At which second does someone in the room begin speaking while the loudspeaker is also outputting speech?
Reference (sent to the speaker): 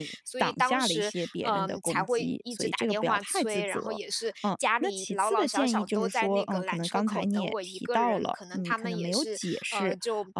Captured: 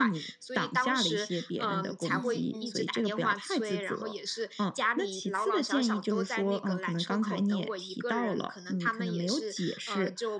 2.0 s

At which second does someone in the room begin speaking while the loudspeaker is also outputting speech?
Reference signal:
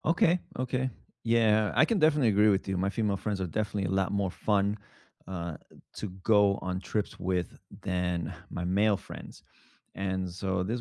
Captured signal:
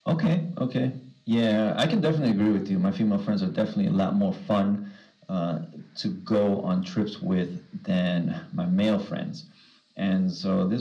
none

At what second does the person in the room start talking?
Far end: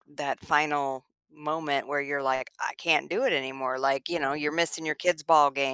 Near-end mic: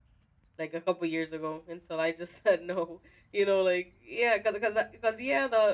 0.6 s

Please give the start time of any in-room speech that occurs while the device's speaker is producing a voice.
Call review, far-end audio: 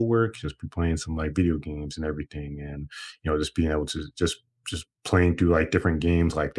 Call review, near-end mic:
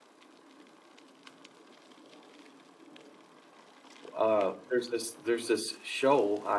4.1 s

